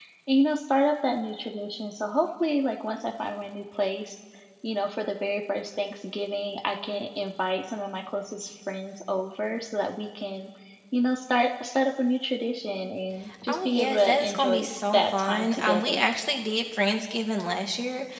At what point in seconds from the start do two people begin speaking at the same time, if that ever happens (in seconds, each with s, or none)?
13.4 s